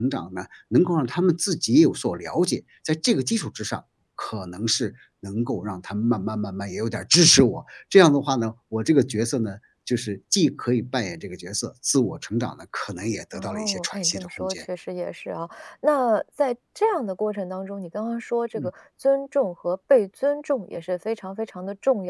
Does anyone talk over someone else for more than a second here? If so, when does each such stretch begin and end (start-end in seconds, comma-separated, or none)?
13.3-14.6